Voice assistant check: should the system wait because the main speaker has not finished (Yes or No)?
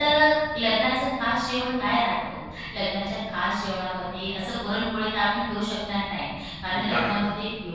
Yes